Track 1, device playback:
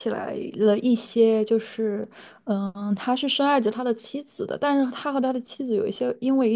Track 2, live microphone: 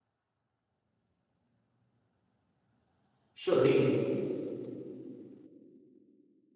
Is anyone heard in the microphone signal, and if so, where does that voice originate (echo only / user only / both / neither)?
user only